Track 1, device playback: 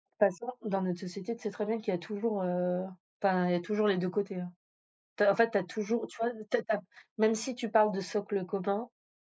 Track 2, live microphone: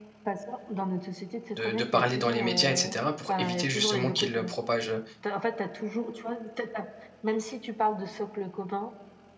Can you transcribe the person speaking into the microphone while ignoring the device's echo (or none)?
de de parler dans les médias et cetera pour éviter justement qu'il, heu, propage, heu